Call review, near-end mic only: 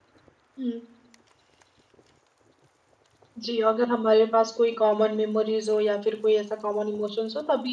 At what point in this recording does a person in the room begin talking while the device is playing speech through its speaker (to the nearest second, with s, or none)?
none